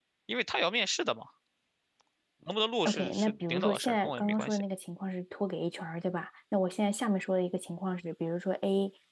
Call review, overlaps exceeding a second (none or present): present